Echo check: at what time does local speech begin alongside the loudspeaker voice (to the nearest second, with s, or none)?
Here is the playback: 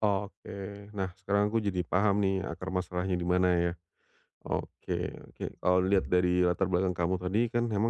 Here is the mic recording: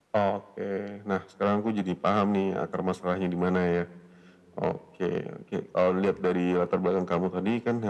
none